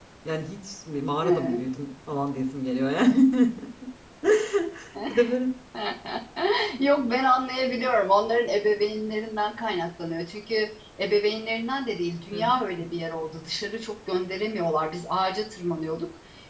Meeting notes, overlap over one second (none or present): none